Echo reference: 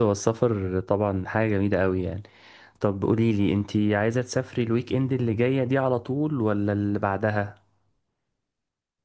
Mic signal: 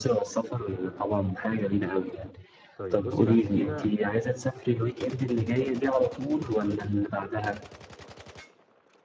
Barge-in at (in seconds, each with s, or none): 2.8 s